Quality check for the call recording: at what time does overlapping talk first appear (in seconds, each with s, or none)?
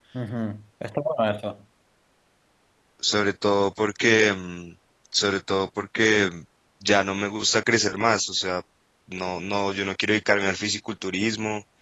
none